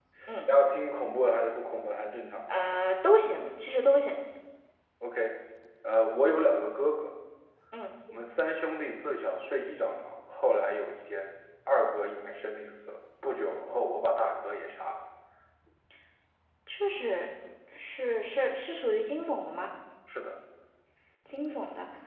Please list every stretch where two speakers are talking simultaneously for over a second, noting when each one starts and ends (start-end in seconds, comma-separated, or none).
none